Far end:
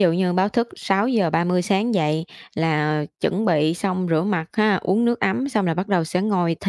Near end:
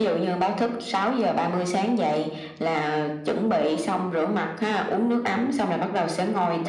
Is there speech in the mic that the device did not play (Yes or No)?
No